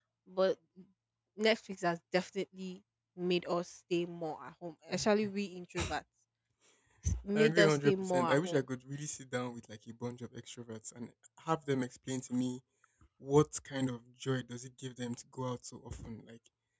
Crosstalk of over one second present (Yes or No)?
Yes